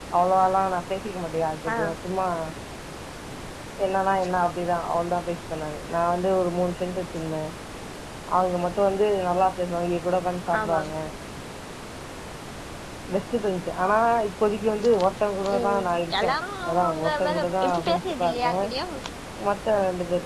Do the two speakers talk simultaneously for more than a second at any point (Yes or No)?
Yes